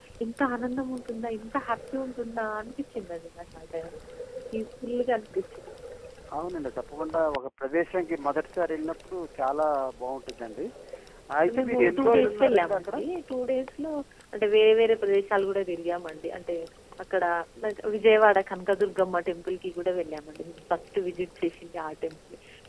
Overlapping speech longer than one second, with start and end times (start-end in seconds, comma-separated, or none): 11.6-12.9